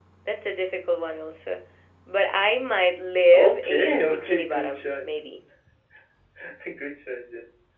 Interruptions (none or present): present